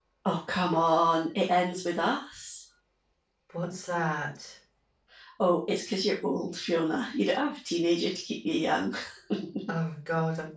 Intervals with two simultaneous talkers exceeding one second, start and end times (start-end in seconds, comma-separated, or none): none